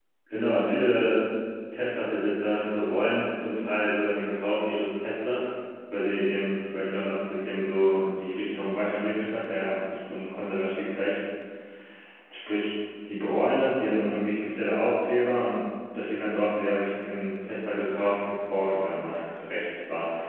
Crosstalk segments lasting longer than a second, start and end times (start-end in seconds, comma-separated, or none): none